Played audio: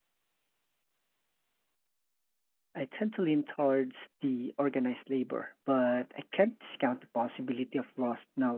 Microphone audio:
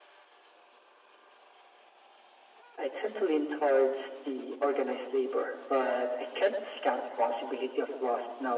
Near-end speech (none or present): none